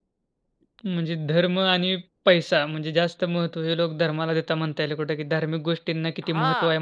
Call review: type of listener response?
taking over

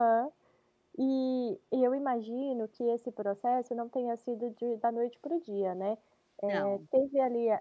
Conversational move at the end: listening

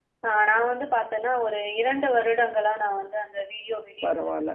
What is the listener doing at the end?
taking over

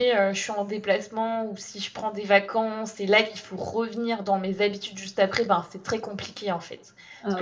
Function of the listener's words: listening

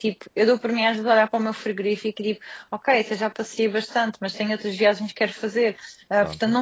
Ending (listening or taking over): listening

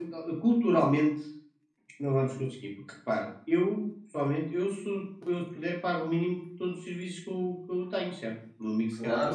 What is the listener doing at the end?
taking over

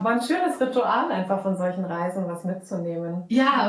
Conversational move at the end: taking over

